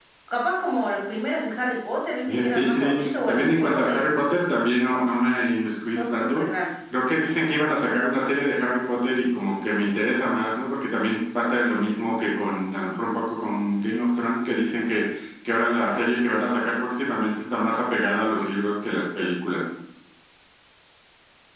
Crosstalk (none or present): present